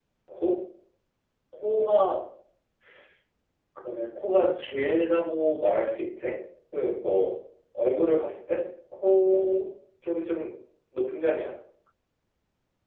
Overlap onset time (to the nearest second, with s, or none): none